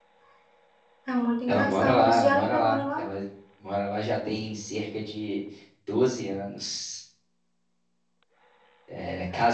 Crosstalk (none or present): present